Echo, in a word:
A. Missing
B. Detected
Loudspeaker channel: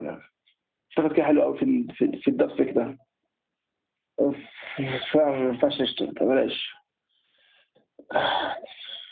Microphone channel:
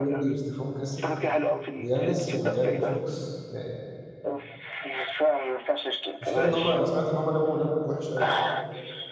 B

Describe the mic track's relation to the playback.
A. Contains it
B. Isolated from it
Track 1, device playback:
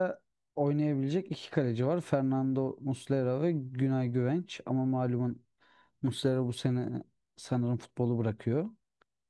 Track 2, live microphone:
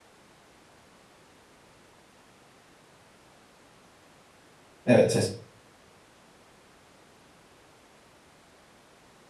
B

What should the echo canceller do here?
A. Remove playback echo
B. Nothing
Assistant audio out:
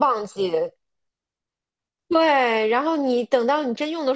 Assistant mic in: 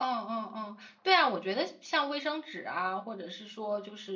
B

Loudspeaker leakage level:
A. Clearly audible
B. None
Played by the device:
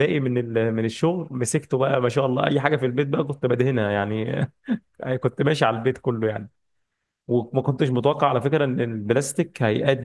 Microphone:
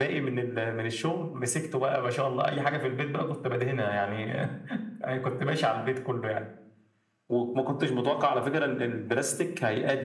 A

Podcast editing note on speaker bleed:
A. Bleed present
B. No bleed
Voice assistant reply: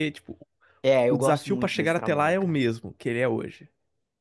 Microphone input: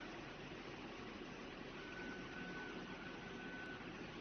B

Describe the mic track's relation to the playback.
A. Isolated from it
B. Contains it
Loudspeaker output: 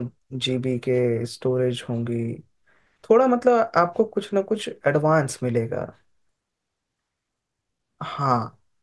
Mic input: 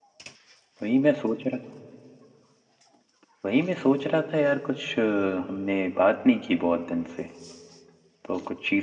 A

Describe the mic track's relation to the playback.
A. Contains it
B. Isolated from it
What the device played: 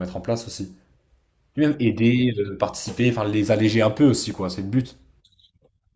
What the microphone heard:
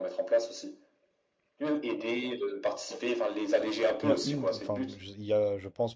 A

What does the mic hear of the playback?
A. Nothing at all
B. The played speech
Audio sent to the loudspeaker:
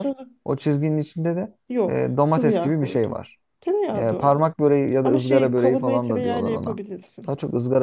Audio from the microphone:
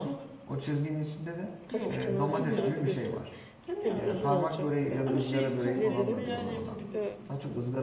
B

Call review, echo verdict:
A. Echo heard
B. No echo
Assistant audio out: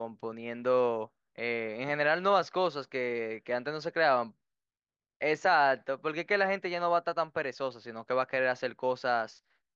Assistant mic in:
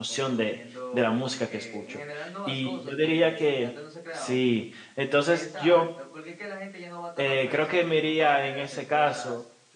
A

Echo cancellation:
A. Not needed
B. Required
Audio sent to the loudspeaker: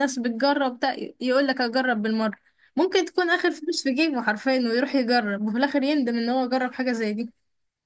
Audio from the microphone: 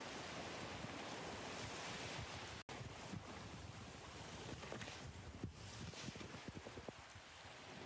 A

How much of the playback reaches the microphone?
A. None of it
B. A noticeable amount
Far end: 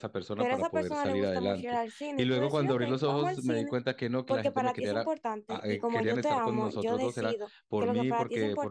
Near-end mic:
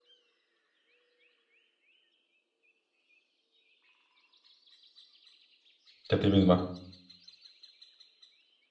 A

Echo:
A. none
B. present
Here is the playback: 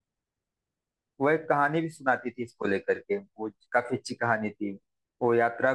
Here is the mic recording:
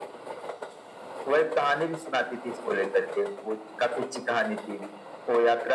B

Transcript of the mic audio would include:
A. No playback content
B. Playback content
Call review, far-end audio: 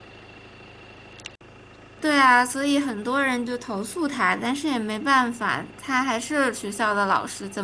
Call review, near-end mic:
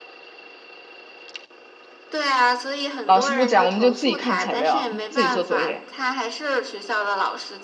B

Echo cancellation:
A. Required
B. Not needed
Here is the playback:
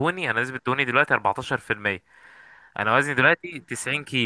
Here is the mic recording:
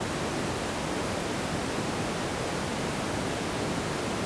B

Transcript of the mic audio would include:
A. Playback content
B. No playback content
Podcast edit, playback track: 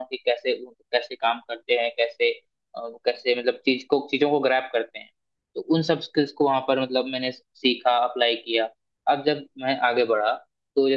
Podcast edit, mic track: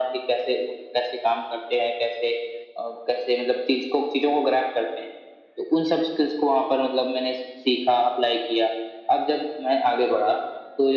A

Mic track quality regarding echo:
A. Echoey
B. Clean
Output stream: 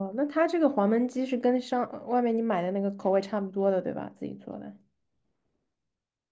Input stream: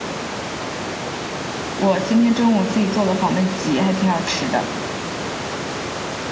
B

